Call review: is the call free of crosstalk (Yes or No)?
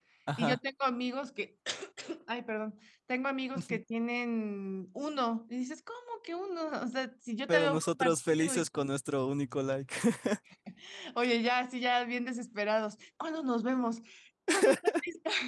No